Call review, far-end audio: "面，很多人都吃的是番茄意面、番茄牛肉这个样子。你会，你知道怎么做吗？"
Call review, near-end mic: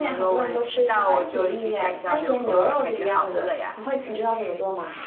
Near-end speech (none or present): present